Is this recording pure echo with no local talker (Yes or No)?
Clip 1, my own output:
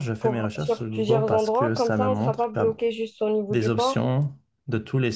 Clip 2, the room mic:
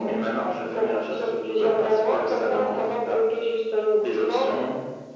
Yes